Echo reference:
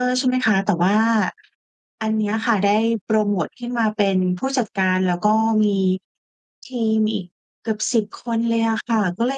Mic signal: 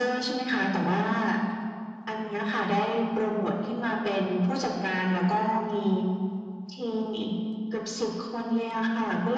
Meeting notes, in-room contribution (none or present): none